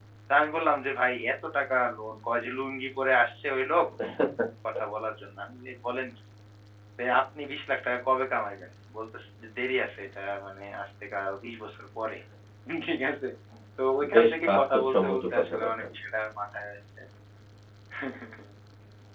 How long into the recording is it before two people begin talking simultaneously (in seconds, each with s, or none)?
14.1 s